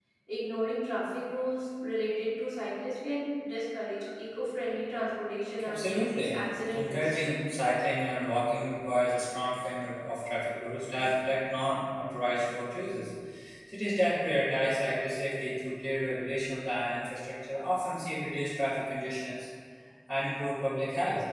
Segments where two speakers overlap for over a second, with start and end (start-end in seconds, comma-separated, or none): 5.6-7.1